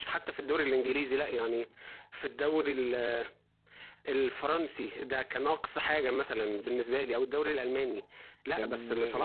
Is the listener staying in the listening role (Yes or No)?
Yes